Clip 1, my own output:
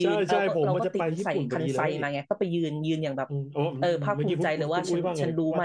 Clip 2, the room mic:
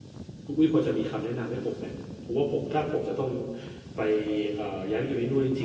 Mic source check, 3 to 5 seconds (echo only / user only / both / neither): user only